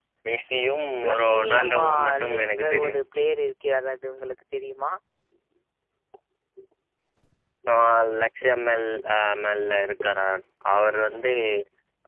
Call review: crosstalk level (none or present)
present